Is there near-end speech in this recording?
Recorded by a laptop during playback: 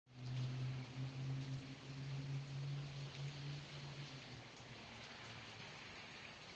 No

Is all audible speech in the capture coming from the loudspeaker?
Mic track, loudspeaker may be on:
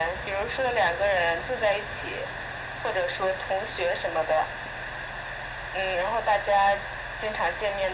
Yes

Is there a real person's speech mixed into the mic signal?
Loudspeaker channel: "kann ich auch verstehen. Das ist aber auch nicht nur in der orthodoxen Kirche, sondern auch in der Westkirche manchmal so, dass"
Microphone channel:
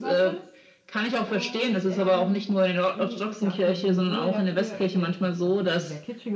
Yes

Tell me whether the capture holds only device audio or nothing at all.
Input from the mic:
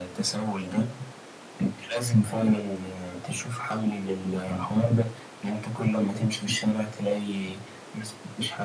Yes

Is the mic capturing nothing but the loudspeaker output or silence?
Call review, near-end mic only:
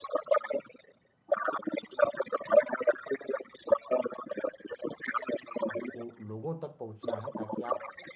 No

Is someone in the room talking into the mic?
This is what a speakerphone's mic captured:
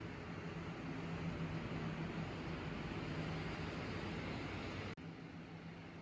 No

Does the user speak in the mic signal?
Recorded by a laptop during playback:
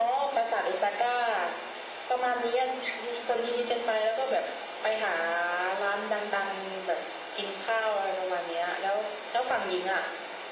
No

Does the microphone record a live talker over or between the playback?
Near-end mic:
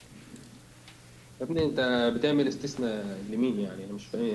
Yes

